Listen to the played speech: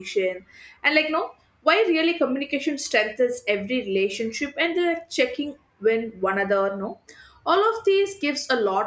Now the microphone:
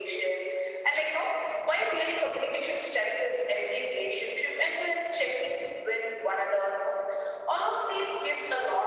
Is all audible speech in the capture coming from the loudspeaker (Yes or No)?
Yes